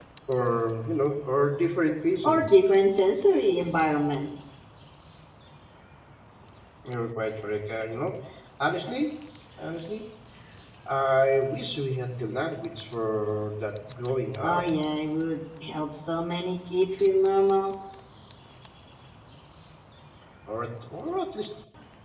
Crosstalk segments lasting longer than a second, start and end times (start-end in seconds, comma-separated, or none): none